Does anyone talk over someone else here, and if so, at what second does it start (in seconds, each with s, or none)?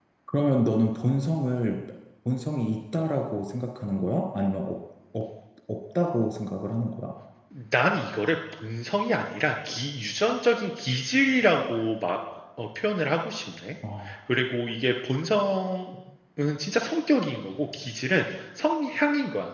none